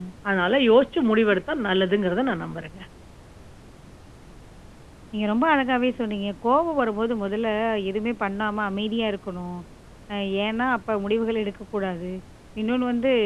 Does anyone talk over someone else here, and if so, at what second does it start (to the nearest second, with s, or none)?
none